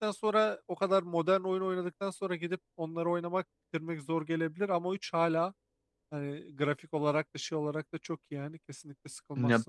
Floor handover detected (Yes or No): Yes